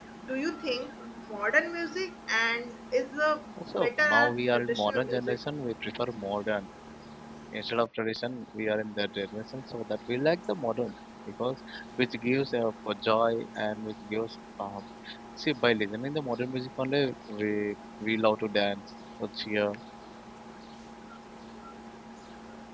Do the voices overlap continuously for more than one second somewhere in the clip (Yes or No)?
Yes